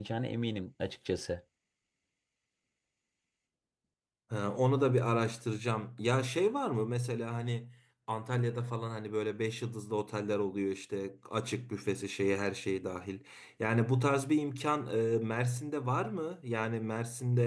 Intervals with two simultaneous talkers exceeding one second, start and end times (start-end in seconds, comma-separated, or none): none